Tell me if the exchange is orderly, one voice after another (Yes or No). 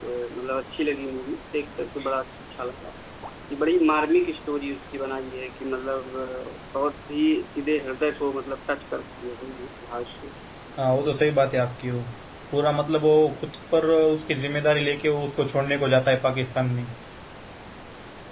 Yes